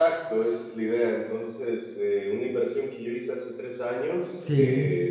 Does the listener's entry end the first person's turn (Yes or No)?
No